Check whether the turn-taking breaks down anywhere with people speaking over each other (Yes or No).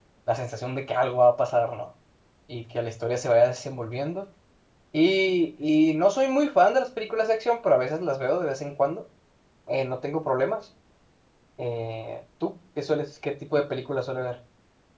No